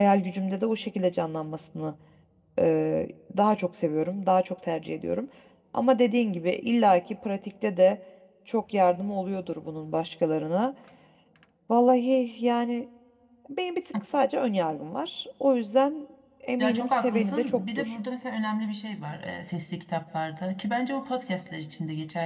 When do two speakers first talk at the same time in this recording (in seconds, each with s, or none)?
16.6 s